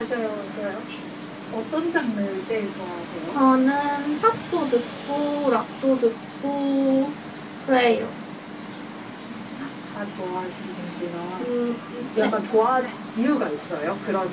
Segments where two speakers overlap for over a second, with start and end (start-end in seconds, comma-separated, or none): none